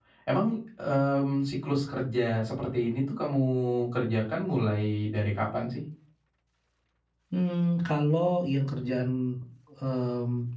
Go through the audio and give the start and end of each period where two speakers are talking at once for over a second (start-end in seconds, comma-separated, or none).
none